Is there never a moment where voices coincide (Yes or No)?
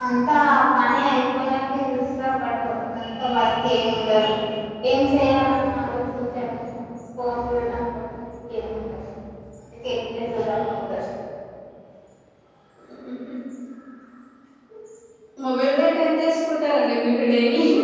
Yes